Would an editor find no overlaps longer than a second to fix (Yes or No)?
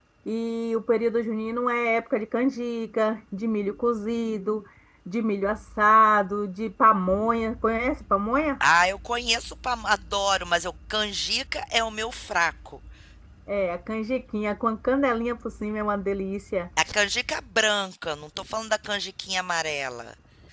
Yes